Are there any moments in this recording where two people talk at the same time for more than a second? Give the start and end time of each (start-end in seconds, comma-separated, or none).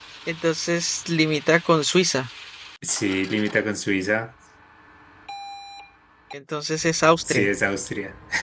none